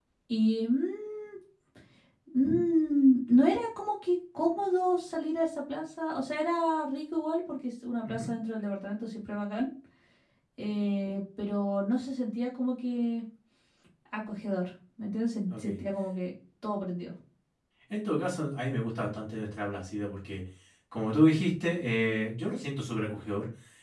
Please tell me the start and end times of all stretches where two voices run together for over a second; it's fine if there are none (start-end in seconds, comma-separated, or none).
none